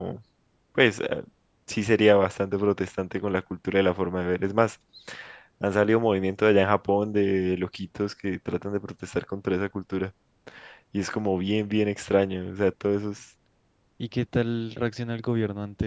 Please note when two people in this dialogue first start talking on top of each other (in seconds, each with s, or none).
none